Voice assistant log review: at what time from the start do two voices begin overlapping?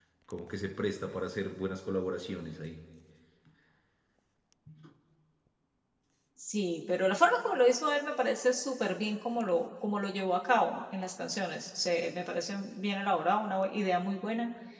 none

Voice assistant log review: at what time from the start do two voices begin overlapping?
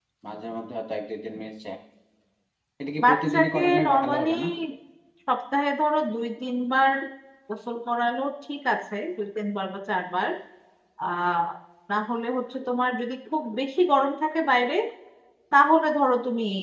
3.0 s

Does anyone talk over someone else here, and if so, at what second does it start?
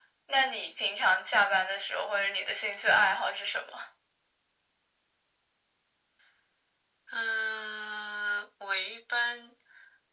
none

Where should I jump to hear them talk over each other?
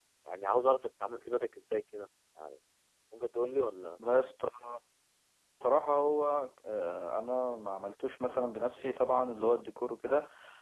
none

